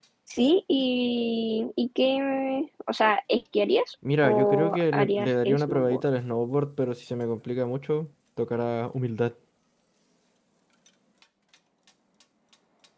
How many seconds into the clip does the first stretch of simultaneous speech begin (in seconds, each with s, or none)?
4.0 s